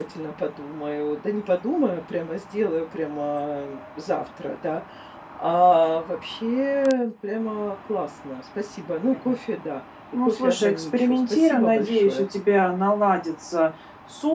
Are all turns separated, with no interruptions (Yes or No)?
No